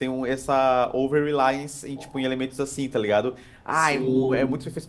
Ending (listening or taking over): listening